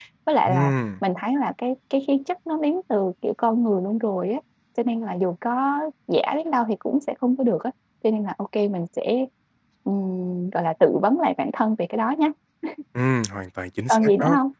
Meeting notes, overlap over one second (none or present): none